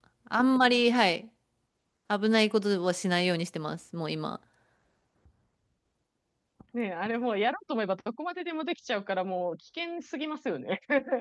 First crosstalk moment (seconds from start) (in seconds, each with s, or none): none